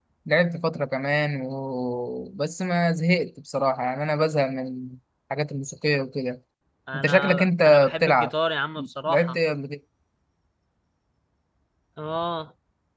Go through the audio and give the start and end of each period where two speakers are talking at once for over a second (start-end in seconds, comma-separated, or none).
6.9-8.3